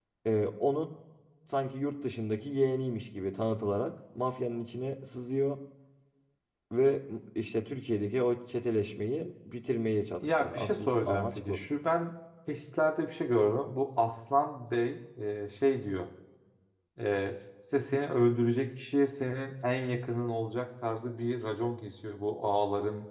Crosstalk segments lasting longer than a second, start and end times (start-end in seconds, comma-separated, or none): 10.2-11.6